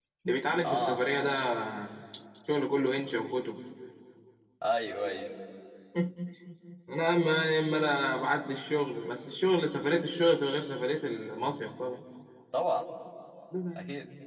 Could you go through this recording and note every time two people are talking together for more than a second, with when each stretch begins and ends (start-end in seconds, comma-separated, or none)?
none